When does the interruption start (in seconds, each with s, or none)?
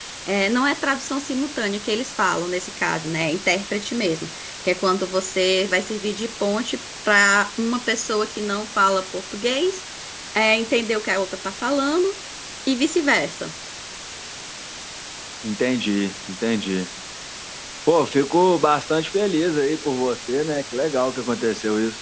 none